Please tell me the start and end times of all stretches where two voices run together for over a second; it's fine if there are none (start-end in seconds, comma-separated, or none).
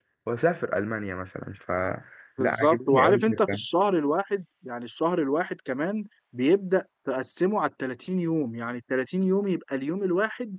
2.4-3.6